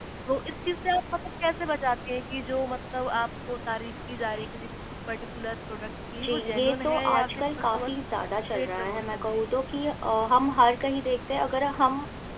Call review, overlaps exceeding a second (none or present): present